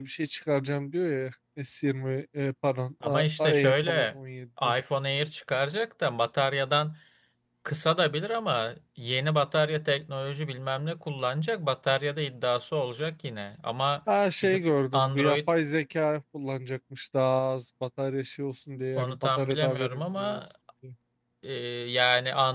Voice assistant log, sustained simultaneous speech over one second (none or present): present